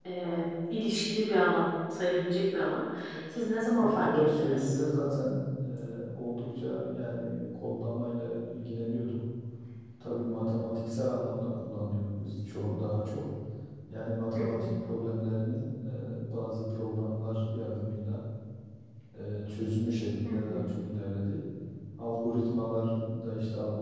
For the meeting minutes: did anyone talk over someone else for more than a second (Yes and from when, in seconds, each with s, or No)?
Yes, from 3.3 s